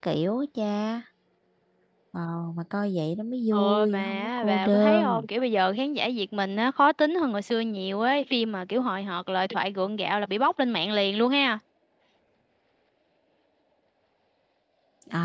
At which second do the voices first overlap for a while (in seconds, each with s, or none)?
3.5 s